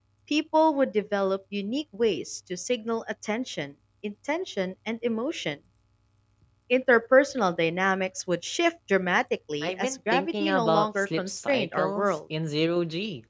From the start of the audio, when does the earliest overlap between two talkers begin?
9.6 s

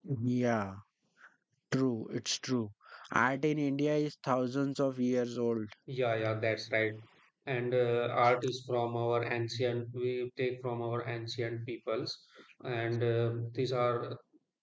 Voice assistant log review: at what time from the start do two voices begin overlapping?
none

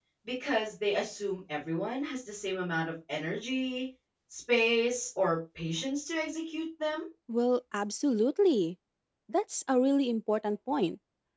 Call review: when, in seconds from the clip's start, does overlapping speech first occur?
none

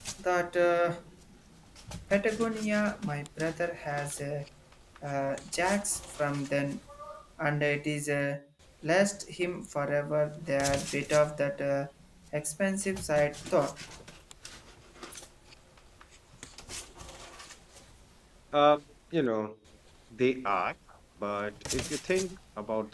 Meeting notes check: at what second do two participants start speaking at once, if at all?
none

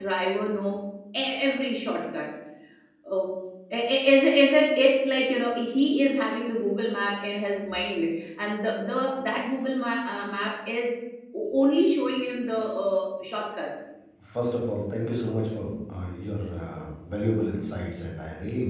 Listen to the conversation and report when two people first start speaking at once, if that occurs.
none

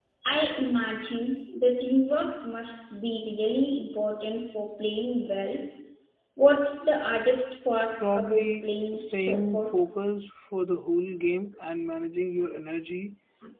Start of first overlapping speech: 8.0 s

